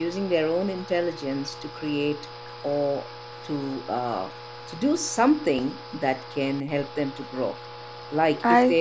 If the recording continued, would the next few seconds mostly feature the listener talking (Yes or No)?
No